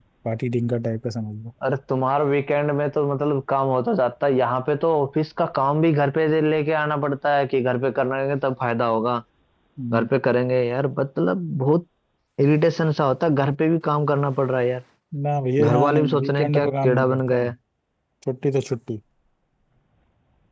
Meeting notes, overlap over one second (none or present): present